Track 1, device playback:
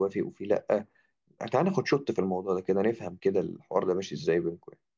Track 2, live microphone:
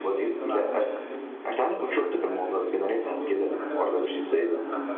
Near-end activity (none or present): present